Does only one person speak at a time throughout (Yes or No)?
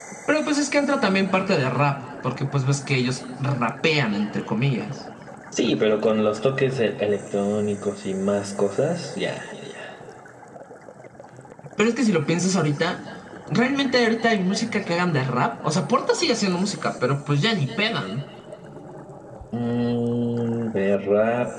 Yes